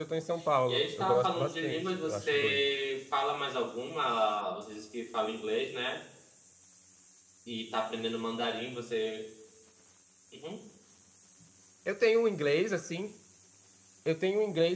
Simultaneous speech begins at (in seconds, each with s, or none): 0.7 s